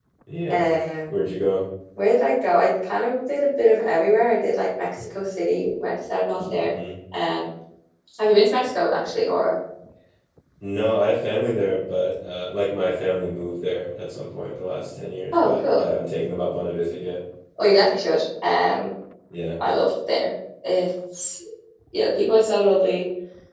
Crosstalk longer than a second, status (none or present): none